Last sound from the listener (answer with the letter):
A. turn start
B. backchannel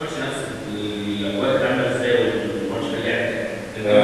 A